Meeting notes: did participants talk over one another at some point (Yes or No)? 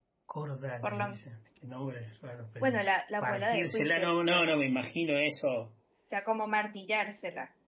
Yes